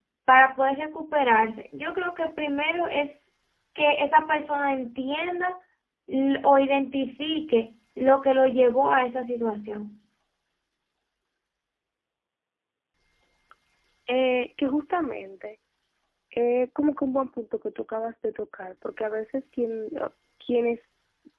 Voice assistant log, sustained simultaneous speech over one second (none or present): none